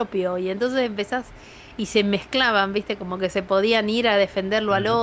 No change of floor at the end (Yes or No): Yes